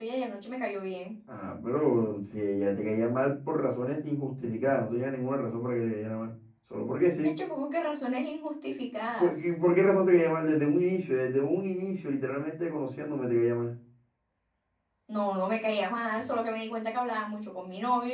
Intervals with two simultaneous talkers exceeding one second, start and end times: none

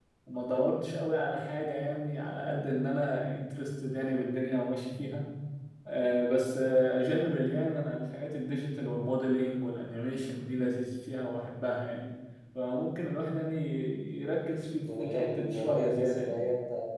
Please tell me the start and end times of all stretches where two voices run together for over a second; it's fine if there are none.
14.9-16.4

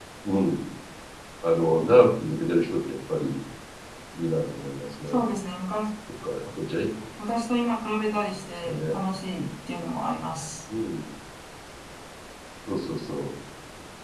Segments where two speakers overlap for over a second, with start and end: none

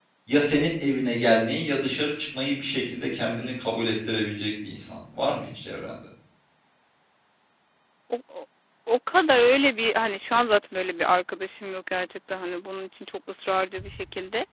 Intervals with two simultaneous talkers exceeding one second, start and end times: none

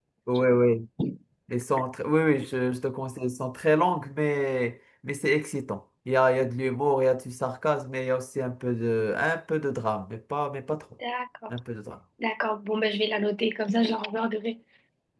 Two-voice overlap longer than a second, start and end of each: none

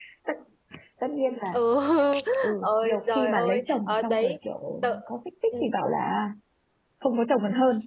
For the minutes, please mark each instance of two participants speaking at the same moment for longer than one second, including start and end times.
2.6-4.3

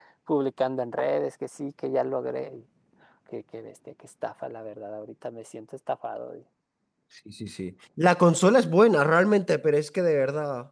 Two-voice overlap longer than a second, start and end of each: none

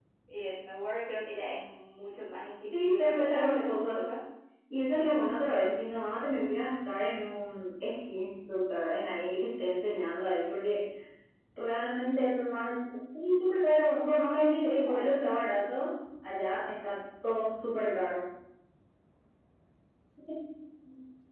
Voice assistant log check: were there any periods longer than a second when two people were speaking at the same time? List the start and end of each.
2.7-4.1, 13.8-15.3

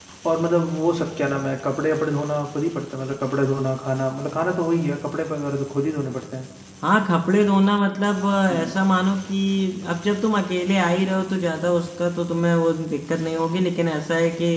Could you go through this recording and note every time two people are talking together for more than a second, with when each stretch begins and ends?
none

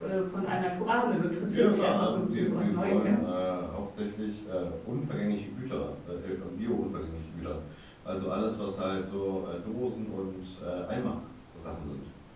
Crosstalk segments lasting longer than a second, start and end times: 1.5-3.2

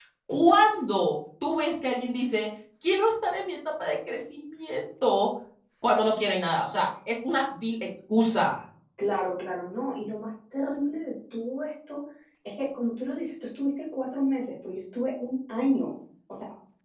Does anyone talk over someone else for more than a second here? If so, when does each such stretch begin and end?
none

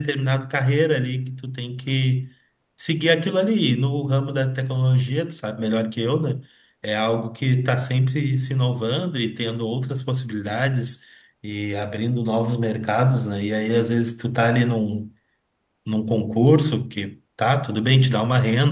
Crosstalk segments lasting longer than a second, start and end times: none

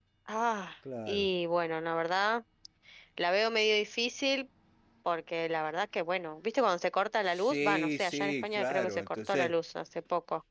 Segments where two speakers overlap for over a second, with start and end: 7.3-9.5

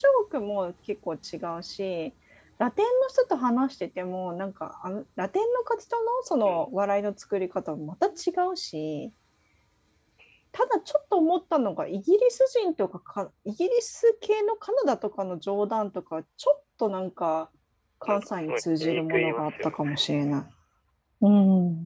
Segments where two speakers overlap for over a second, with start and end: 18.0-19.8

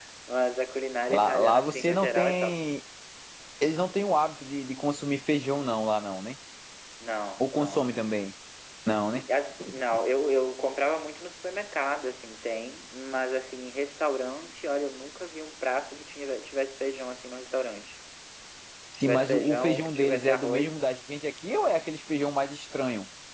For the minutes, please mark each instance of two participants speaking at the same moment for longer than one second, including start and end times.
1.1-2.5, 19.0-20.8

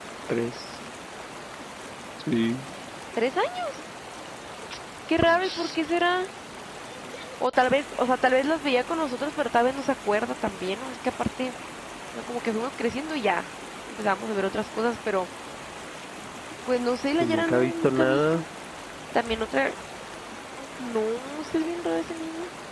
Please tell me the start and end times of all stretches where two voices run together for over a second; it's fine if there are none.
17.2-18.4

